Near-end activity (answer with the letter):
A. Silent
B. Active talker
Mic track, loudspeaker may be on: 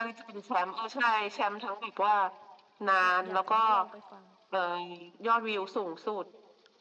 B